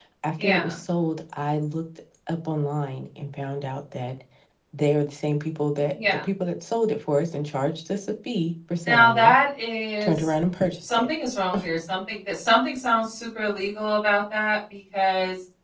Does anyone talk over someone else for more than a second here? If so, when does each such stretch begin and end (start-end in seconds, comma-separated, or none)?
none